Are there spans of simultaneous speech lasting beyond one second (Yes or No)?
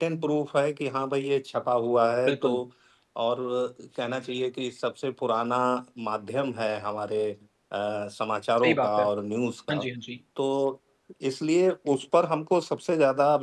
No